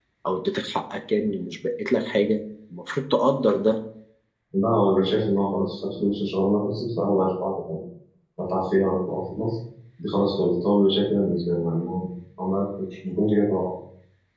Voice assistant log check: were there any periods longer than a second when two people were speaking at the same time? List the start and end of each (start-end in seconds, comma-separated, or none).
none